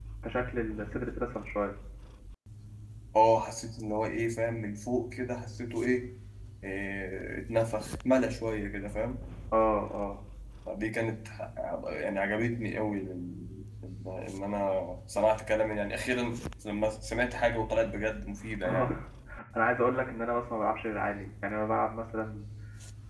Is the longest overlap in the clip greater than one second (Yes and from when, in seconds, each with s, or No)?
No